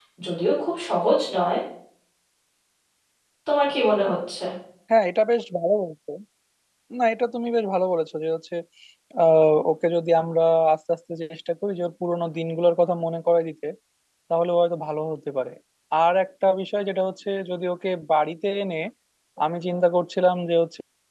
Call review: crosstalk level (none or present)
none